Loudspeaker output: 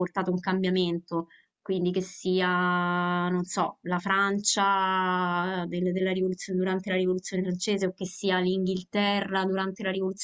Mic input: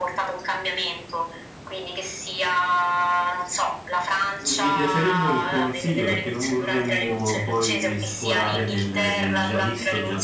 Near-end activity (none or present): present